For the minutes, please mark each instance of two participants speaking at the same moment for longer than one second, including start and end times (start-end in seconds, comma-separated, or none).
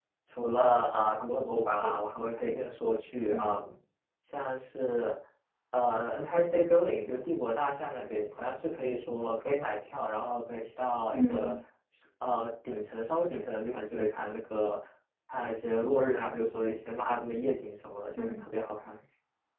none